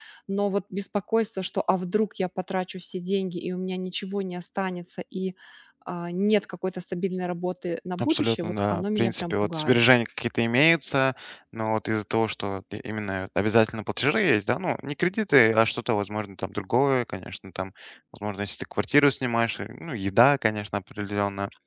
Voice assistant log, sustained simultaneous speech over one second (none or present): present